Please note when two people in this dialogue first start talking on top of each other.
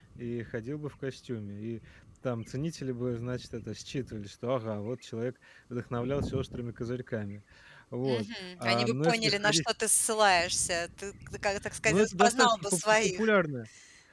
8.0 s

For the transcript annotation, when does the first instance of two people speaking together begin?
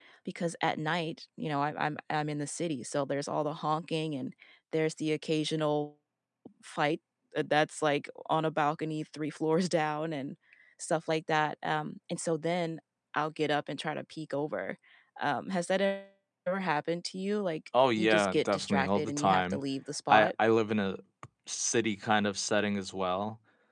17.7 s

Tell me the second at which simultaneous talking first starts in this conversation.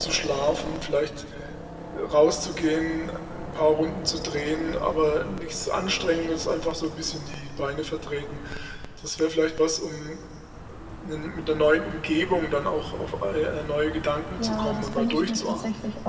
14.4 s

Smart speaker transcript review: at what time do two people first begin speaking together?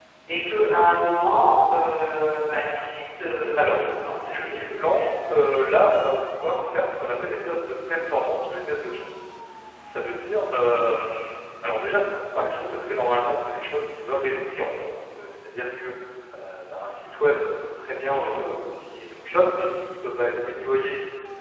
3.5 s

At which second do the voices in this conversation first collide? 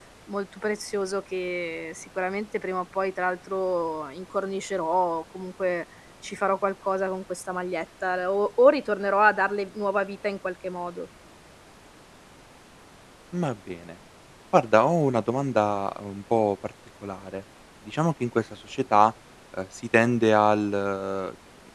none

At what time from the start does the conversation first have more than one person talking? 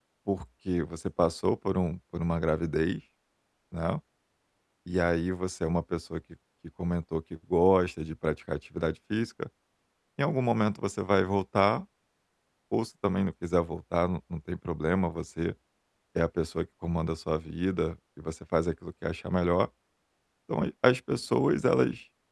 none

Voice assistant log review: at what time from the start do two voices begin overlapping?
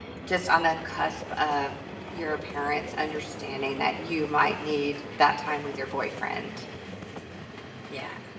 none

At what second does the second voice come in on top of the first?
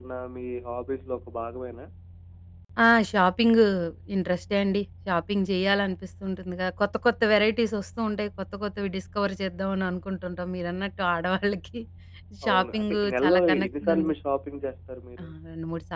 12.5 s

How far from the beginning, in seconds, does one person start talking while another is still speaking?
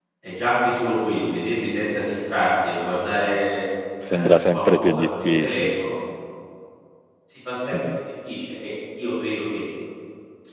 4.1 s

